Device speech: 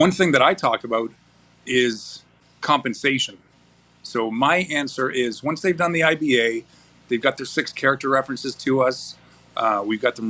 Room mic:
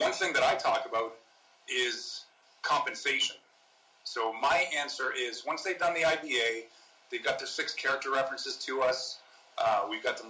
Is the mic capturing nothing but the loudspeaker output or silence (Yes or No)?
Yes